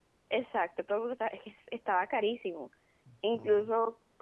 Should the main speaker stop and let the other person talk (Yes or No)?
No